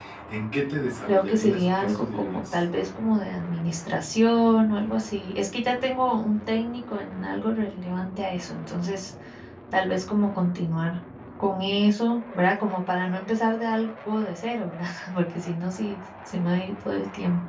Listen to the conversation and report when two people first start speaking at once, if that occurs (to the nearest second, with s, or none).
1 s